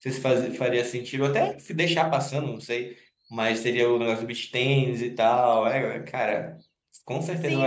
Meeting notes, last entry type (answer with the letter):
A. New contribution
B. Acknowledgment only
A